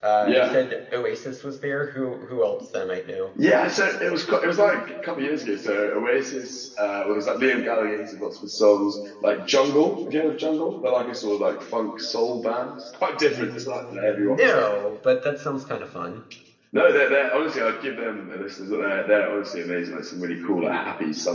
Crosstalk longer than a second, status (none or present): present